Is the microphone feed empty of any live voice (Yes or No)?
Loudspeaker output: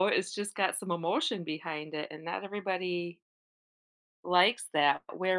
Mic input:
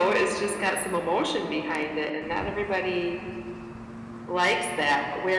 Yes